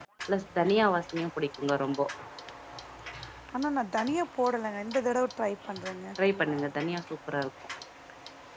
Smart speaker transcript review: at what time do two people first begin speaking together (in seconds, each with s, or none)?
none